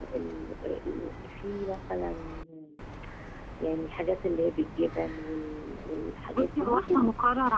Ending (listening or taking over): taking over